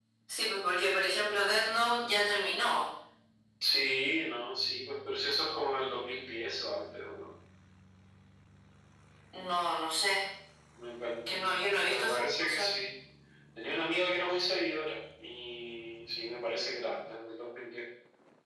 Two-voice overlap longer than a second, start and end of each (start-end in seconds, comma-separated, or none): 11.3-12.7